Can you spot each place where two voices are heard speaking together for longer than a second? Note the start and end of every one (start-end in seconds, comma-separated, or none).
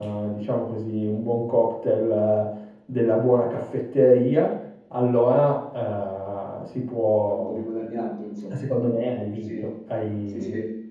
none